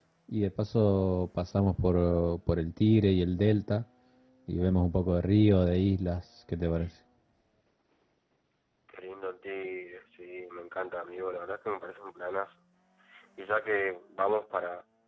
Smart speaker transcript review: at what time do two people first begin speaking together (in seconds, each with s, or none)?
none